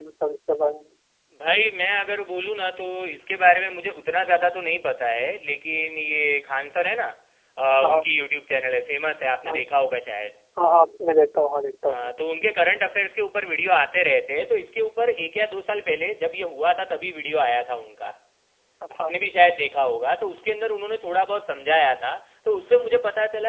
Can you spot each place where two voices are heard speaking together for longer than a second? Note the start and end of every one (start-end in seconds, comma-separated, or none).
none